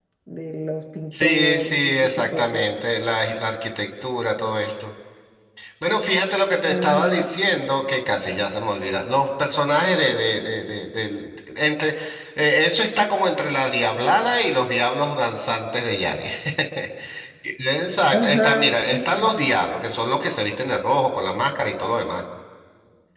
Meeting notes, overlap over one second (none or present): present